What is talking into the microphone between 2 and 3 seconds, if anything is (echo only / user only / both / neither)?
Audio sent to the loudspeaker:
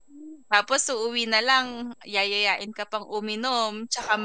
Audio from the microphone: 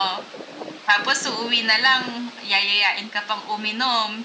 echo only